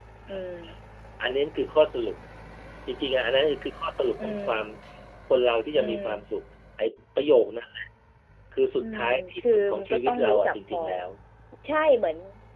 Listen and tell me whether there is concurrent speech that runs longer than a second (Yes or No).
Yes